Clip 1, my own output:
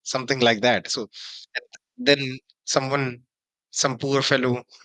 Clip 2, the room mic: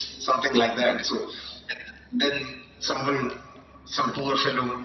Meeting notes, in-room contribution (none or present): none